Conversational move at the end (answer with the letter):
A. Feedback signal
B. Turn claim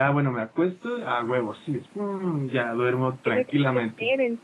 B